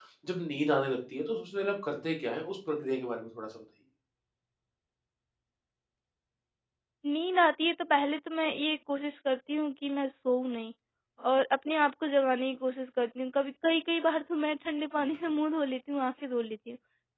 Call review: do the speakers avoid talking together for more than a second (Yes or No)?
Yes